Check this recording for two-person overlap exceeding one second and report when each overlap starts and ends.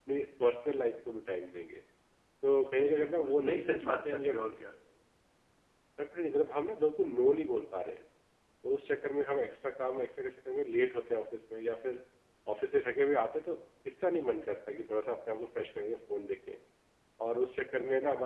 2.8-4.5

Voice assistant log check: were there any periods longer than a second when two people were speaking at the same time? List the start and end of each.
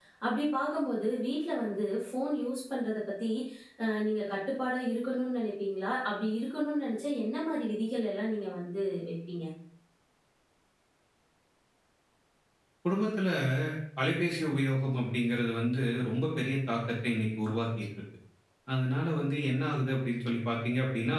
none

